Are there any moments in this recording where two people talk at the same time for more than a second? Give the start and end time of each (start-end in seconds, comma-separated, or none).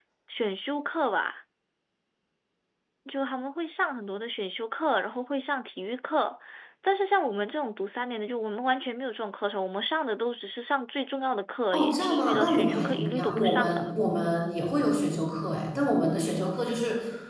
11.7-13.9